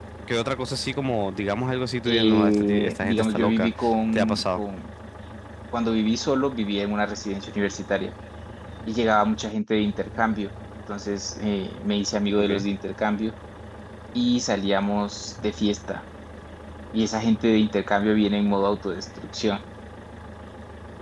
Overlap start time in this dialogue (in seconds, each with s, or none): 2.1 s